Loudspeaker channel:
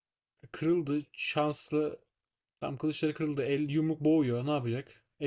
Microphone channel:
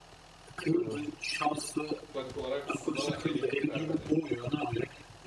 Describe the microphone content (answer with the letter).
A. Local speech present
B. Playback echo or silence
A